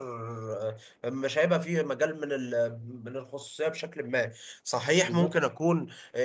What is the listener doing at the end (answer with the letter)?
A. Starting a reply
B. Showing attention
B